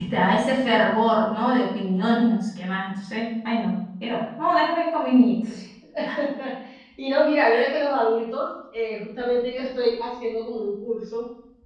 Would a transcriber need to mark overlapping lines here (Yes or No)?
No